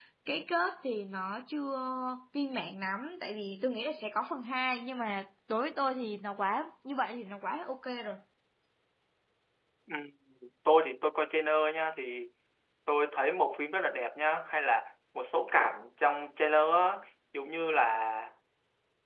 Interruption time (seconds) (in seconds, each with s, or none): none